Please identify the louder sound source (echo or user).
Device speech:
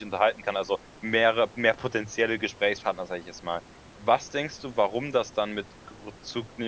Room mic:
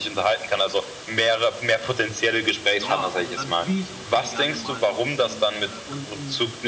echo